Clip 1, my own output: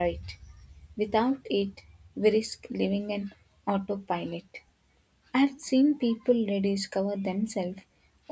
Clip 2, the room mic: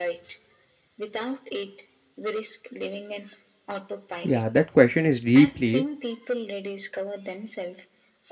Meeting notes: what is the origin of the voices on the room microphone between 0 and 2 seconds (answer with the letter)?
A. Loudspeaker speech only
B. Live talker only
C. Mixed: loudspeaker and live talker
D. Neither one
A